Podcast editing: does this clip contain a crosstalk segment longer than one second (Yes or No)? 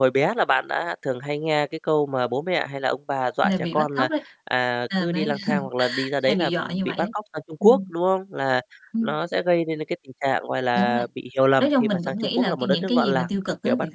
Yes